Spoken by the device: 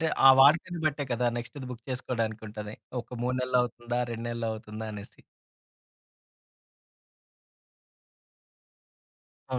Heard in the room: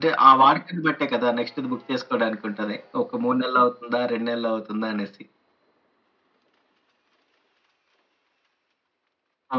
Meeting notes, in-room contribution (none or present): none